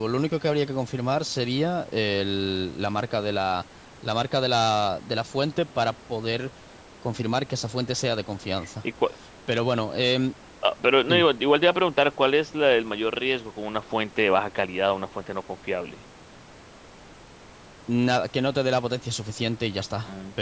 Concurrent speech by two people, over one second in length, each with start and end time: none

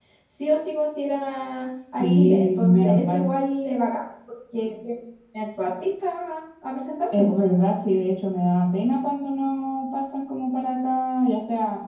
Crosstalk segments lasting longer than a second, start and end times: 2.0-3.2

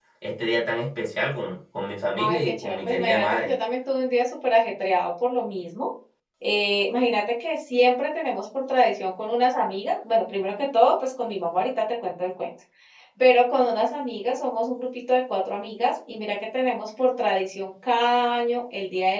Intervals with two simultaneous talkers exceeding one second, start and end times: 2.2-3.5

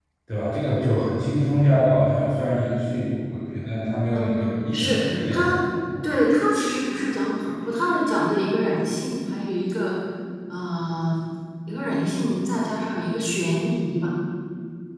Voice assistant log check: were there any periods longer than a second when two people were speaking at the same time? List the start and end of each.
4.1-5.6

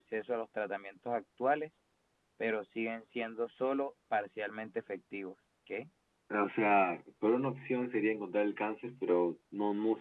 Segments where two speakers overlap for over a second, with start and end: none

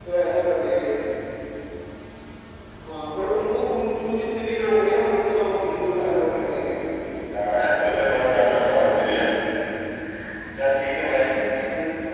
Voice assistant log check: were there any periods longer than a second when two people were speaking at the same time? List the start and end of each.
4.6-6.7

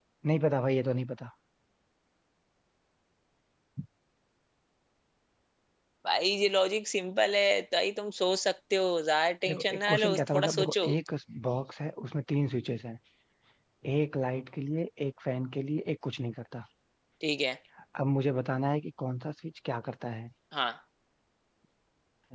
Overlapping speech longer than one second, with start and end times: 9.5-10.9

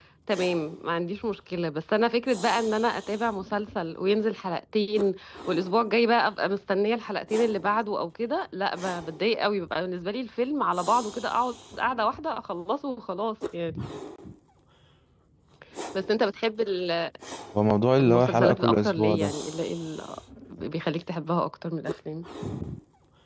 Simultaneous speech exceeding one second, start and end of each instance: 18.0-19.3

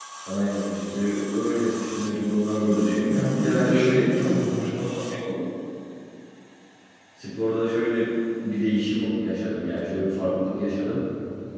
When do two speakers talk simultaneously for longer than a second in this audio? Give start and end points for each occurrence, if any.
2.6-4.1

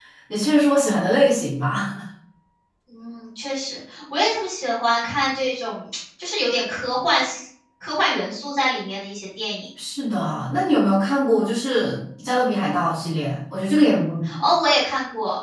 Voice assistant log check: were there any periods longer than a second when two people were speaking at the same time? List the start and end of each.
none

